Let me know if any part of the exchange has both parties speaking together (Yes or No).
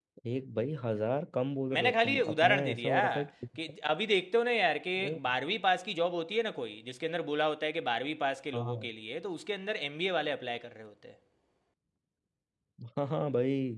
Yes